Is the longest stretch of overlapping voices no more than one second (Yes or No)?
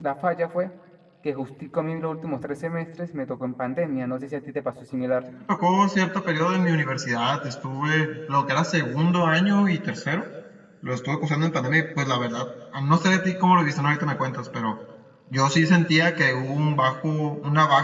Yes